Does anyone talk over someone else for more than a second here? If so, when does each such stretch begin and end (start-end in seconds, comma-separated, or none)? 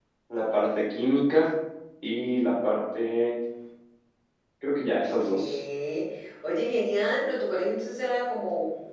none